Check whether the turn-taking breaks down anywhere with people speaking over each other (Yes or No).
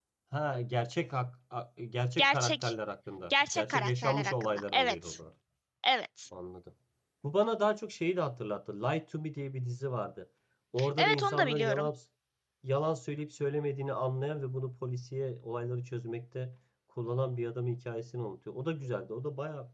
Yes